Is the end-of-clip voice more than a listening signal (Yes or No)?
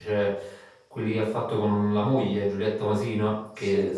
No